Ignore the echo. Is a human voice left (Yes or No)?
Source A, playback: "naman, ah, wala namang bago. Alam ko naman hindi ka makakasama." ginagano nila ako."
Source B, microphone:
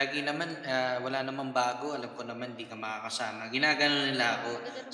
Yes